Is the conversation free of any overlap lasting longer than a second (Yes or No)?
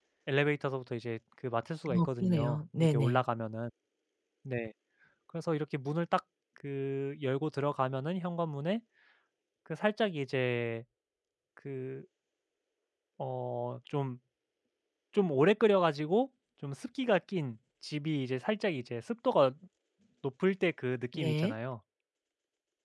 No